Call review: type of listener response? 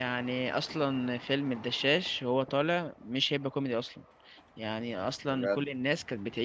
listening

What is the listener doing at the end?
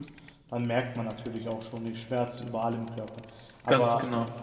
listening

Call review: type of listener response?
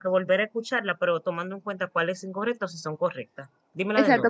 taking over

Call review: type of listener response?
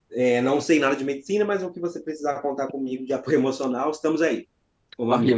taking over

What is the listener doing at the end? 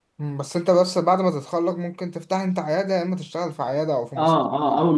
taking over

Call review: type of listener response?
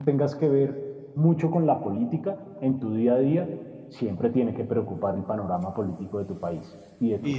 taking over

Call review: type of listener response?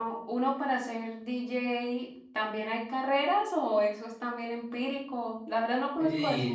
taking over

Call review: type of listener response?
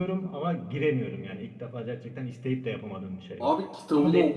taking over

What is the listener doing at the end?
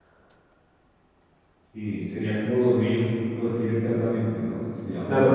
taking over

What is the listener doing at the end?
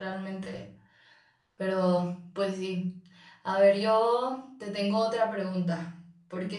listening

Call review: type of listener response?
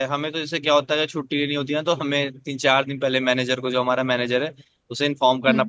listening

